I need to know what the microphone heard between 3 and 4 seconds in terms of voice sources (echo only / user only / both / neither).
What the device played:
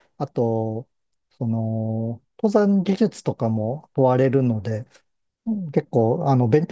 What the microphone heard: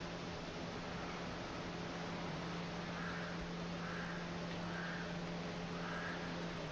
neither